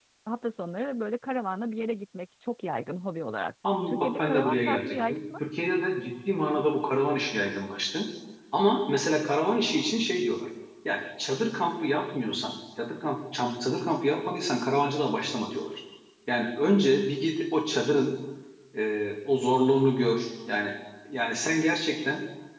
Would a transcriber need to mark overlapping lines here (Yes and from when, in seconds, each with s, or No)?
Yes, from 3.6 s